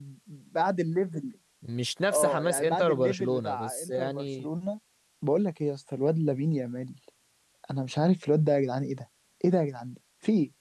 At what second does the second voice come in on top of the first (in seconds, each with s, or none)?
2.1 s